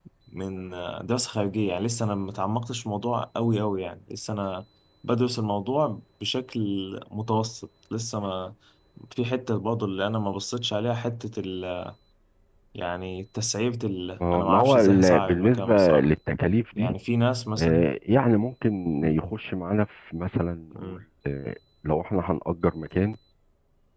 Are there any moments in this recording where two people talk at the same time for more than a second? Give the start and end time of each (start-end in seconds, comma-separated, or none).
14.3-16.1